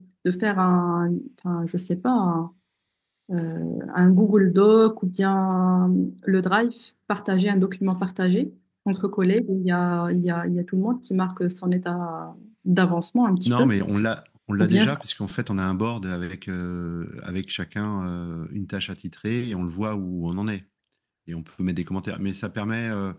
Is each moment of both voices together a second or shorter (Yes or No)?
Yes